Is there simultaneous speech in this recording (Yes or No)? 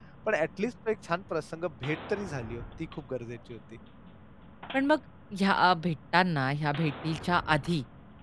No